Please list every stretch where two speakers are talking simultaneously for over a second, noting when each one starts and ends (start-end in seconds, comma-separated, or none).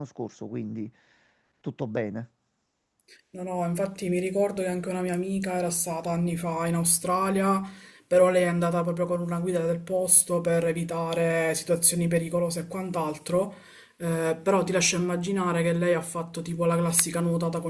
none